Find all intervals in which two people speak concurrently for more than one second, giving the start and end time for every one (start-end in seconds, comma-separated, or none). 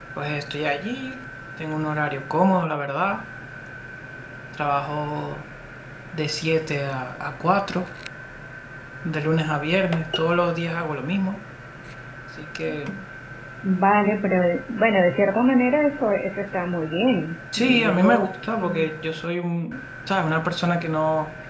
17.6-18.9